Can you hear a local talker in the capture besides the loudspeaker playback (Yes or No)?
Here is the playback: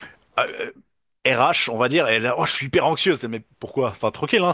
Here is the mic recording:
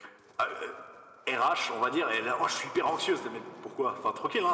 No